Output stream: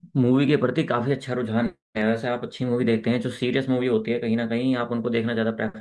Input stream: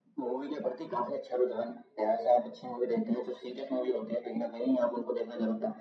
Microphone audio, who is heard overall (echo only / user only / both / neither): echo only